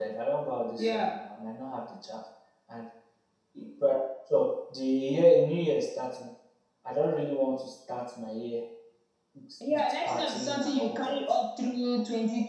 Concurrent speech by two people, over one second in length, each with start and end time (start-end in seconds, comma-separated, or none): 9.7-11.2